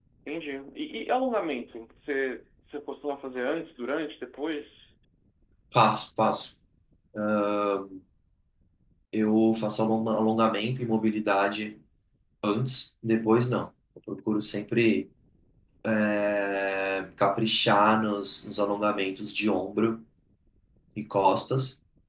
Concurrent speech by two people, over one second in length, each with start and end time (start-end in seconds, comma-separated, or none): none